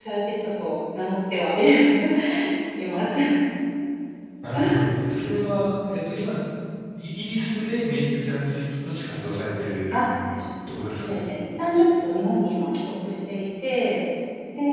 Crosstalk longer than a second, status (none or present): none